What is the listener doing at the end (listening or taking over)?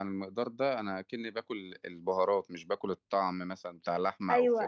taking over